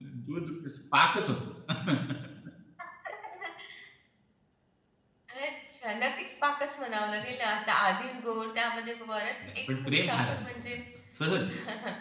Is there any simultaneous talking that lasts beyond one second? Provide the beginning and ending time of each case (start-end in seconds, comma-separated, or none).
9.6-10.8